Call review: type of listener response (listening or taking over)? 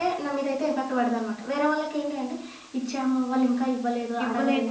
taking over